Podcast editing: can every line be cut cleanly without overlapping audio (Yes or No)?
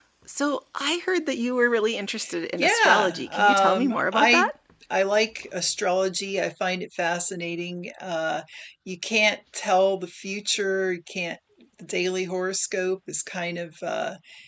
No